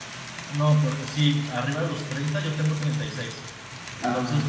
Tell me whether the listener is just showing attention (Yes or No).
Yes